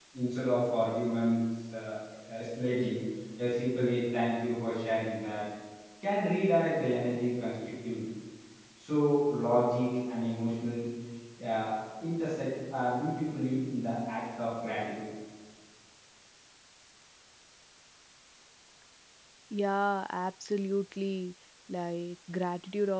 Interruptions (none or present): none